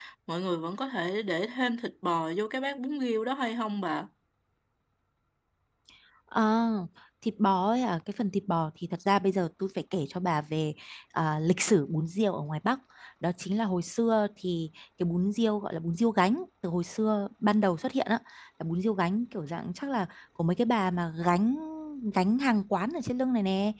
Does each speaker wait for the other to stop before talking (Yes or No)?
Yes